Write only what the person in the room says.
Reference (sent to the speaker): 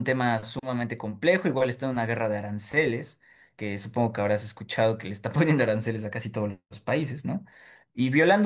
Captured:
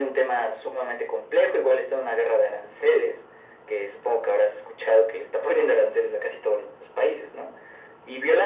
none

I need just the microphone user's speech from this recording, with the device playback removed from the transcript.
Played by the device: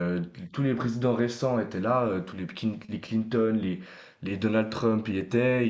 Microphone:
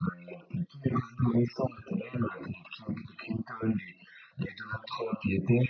none

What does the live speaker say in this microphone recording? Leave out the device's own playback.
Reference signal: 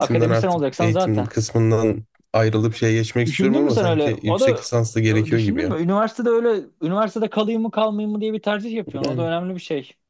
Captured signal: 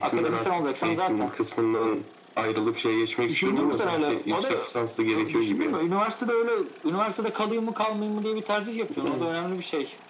none

